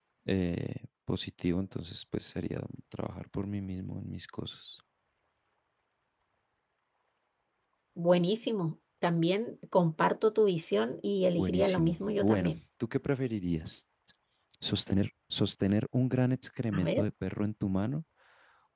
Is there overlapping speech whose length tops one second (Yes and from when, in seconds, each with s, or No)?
Yes, from 11.4 s